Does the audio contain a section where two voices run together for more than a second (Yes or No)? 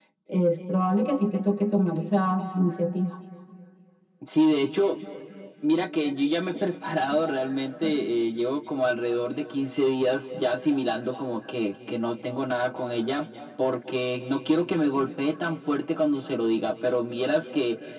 No